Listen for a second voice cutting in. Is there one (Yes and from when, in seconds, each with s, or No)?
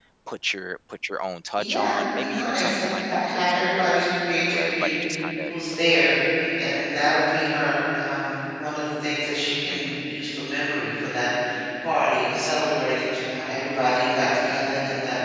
Yes, from 1.6 s